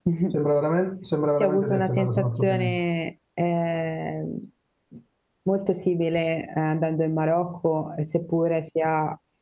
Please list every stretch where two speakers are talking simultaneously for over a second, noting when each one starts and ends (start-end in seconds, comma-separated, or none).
1.4-2.8